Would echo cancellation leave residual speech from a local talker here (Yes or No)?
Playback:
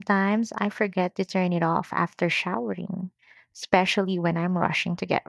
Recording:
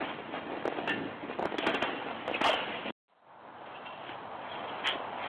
No